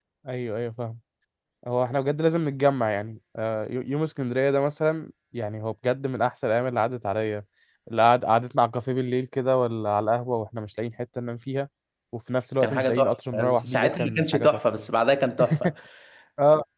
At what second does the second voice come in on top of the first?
12.6 s

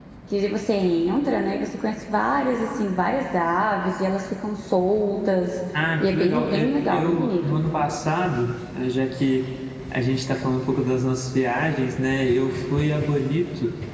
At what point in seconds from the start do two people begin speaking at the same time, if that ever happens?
6.0 s

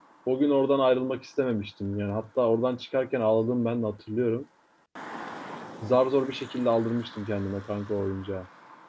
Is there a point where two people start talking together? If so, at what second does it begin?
none

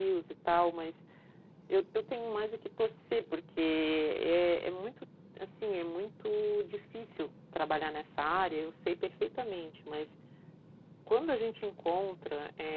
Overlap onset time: none

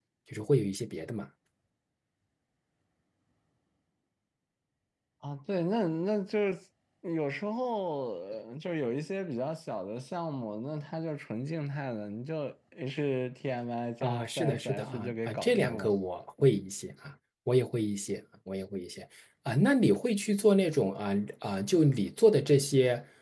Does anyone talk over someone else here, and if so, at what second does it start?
14.0 s

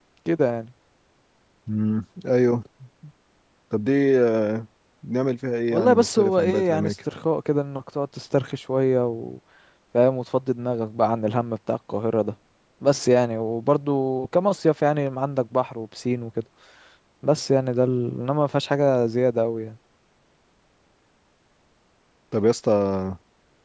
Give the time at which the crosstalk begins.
5.7 s

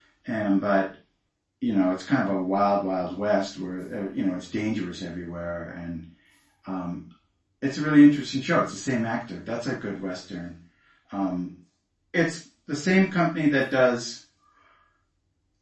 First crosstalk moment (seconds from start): none

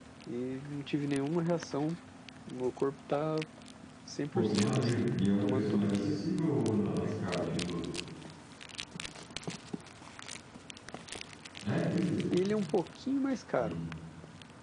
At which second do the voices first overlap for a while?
4.3 s

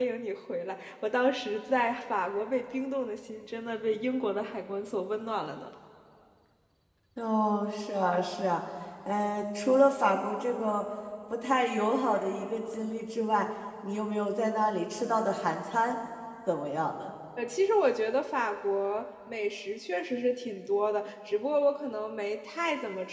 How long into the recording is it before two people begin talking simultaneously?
none

